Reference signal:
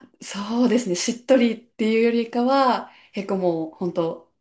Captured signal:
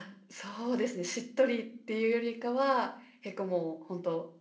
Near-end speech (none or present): none